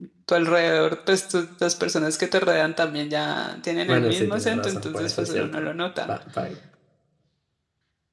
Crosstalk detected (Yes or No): Yes